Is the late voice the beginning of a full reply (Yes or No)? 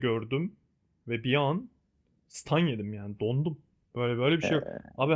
No